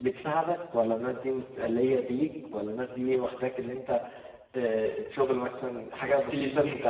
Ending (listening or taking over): taking over